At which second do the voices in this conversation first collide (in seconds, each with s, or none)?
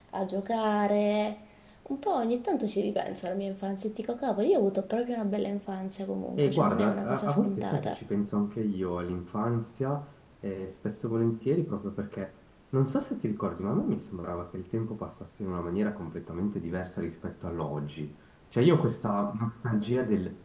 6.4 s